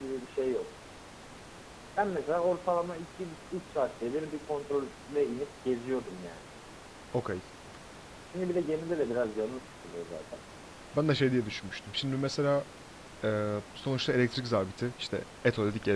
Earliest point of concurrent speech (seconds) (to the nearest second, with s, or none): none